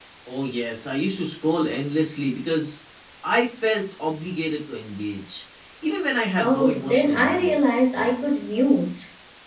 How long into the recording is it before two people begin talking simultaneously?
6.4 s

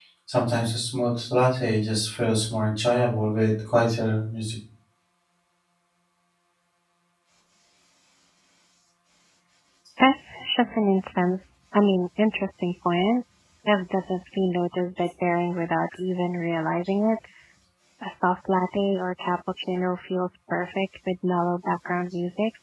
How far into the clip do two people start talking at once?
none

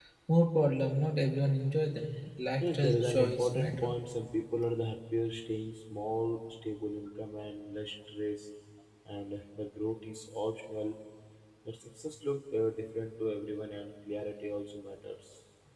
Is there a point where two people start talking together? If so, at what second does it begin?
2.6 s

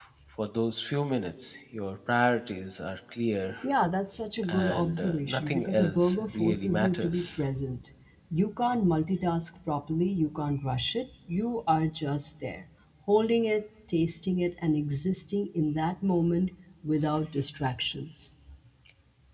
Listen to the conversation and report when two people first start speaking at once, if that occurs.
4.5 s

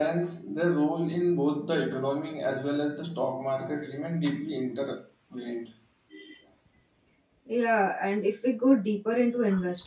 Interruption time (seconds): none

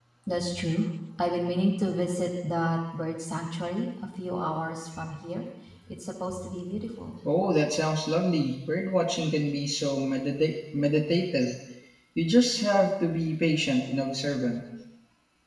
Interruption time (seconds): none

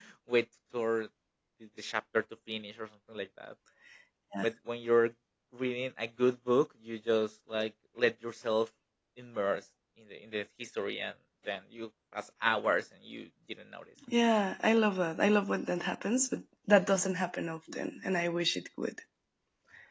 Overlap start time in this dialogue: none

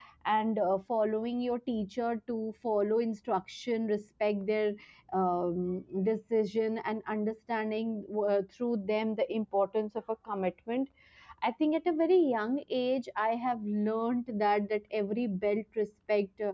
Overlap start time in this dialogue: none

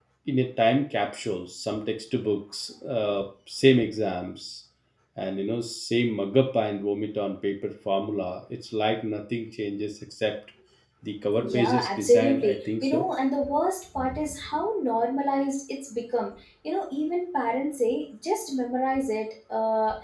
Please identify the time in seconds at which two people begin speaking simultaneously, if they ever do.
11.4 s

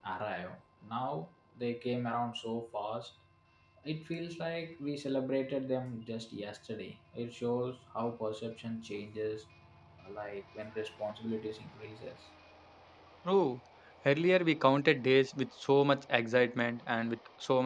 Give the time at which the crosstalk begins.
none

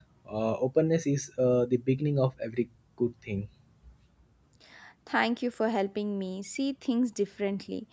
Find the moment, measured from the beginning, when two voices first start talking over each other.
none

